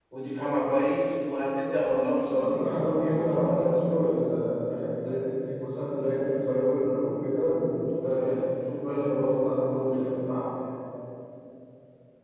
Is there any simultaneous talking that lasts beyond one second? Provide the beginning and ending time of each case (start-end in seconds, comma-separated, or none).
2.3-3.7